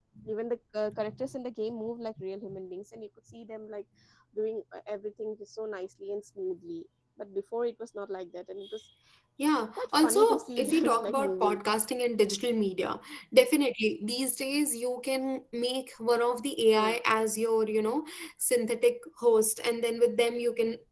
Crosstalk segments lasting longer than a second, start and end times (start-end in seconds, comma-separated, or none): 9.8-11.6